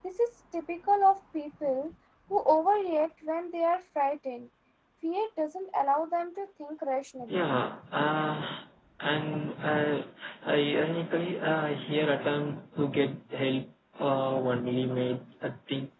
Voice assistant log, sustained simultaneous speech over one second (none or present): none